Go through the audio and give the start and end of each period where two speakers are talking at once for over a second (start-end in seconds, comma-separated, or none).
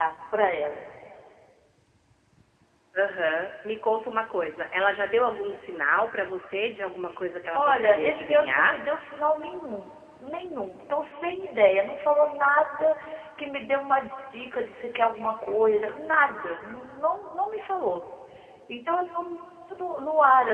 7.5-8.8